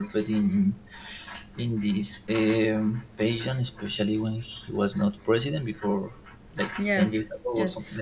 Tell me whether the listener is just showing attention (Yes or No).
No